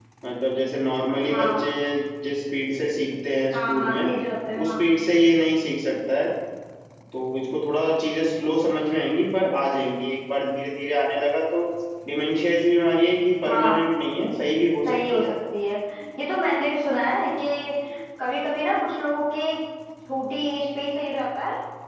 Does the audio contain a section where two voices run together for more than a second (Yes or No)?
No